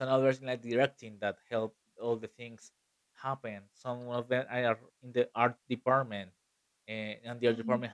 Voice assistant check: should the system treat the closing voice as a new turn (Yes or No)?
No